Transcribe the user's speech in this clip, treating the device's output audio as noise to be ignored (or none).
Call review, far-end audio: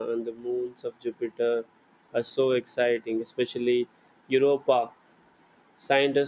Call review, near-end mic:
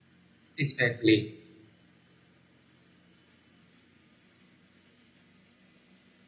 Exactly.